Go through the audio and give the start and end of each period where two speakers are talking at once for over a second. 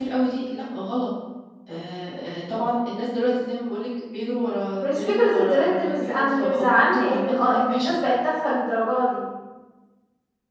4.8-8.0

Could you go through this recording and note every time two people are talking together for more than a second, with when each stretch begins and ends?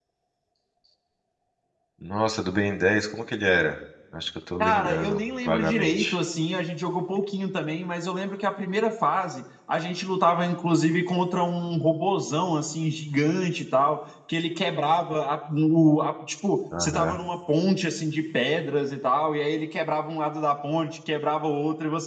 4.6-6.2

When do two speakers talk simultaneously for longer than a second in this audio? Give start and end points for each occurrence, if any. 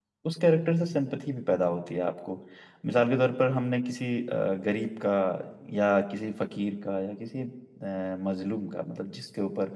none

